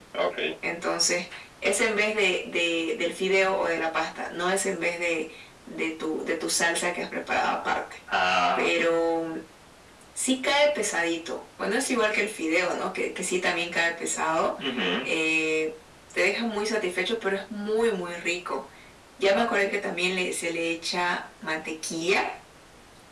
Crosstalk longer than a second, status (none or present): none